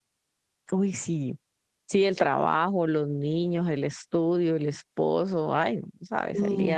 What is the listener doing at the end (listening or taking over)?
taking over